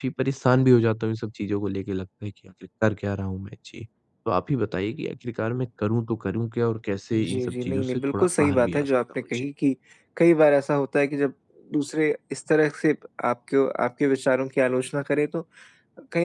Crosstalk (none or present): present